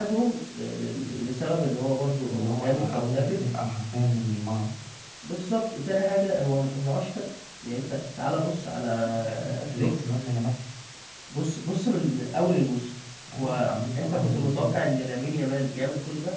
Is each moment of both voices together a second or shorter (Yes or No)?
No